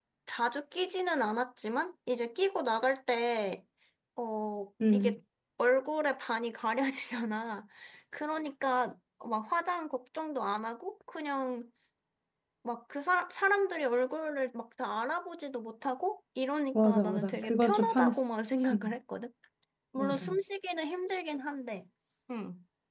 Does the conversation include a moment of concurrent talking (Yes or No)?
Yes